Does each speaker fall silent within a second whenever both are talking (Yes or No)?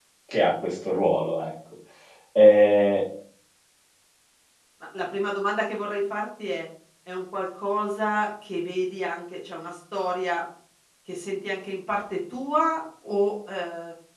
Yes